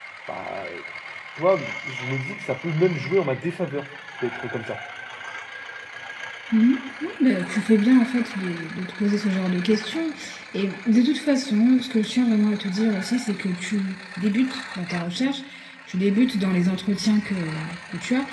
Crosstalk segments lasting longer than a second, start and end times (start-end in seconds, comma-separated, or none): none